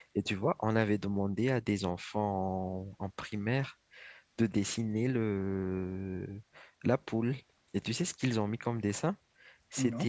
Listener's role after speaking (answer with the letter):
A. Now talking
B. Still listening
B